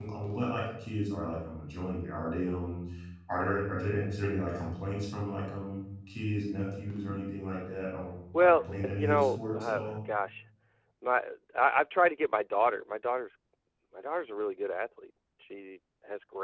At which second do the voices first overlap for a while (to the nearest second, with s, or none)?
8 s